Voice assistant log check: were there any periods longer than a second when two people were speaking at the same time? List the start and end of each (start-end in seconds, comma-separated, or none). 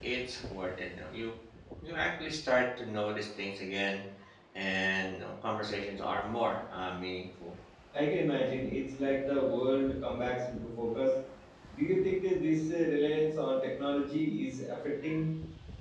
none